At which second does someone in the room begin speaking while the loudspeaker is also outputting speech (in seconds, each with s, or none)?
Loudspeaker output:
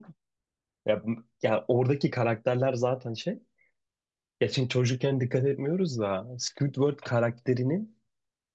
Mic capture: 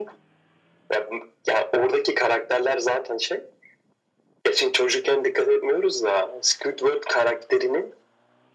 none